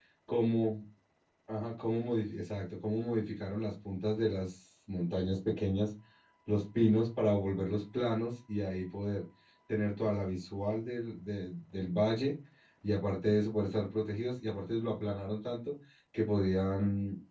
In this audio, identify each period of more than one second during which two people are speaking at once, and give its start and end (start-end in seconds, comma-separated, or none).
none